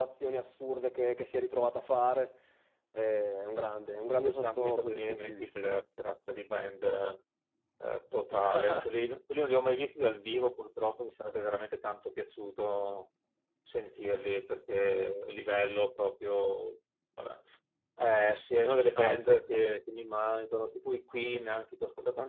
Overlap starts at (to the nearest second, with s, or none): 4 s